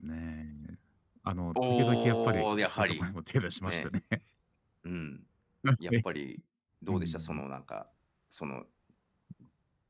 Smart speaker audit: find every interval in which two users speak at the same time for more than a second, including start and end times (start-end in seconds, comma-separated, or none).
1.6-3.1